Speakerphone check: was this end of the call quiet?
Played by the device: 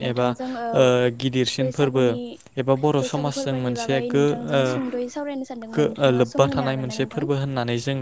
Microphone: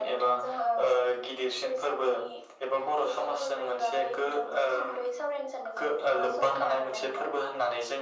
Yes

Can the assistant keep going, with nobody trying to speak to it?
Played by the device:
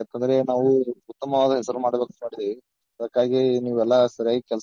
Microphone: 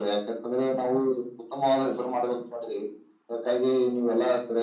Yes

